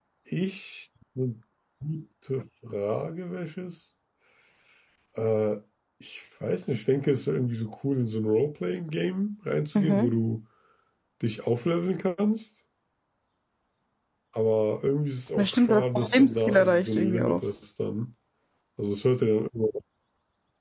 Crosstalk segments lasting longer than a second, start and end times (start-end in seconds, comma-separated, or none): 15.4-17.4